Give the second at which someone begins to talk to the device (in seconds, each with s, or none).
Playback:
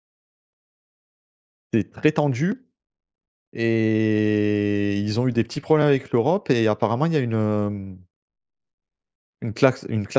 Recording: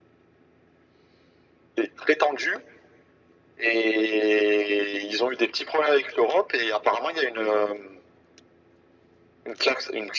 none